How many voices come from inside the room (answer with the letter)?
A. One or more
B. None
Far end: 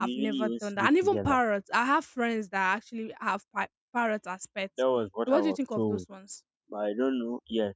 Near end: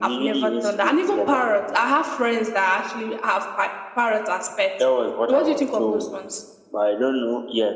B